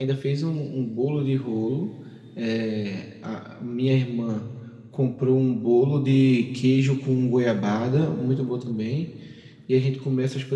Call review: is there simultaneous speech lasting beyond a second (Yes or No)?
No